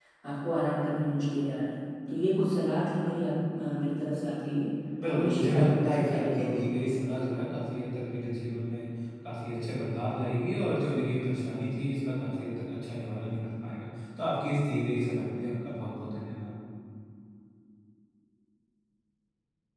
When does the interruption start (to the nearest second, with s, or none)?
5 s